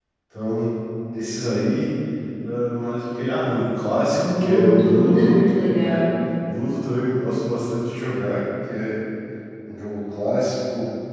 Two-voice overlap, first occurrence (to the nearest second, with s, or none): 4 s